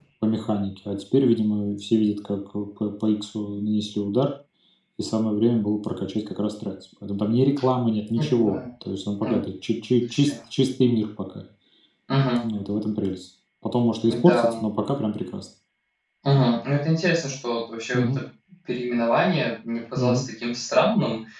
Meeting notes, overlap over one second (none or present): none